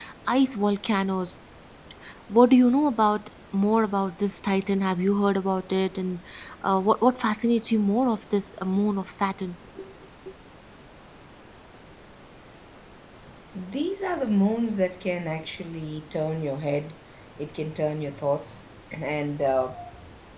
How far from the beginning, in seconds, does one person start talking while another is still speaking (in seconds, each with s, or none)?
none